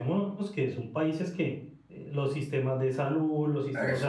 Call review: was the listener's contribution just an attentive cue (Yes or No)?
Yes